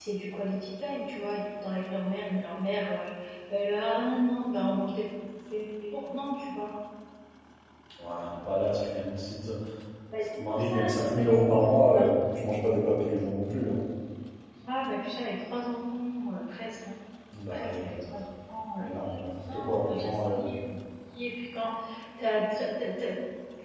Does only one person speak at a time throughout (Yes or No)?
No